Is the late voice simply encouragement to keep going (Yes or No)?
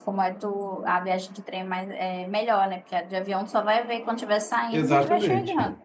No